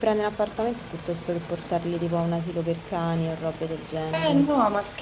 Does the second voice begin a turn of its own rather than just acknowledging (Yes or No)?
Yes